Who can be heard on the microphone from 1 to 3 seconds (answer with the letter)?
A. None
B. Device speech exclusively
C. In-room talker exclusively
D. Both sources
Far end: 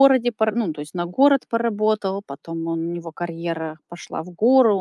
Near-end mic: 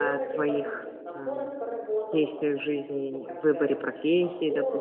D